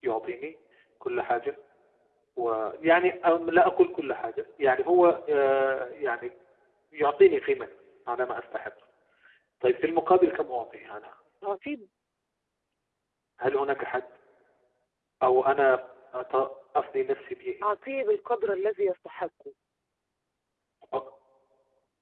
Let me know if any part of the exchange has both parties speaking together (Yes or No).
No